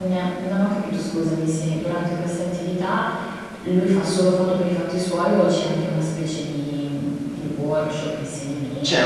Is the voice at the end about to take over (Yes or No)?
Yes